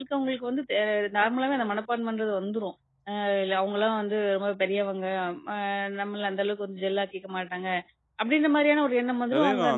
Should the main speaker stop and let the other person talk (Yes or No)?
Yes